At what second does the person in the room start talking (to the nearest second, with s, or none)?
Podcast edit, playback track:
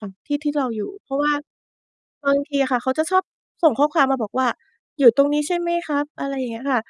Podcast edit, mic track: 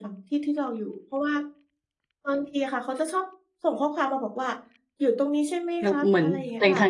6 s